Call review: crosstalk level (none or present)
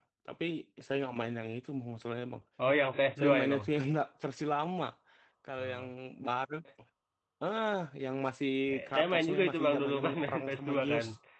present